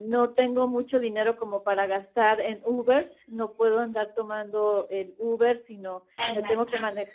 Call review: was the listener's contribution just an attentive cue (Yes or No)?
Yes